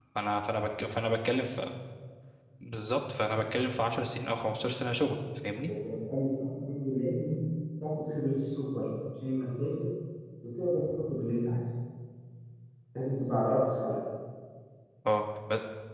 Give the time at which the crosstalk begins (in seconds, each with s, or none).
none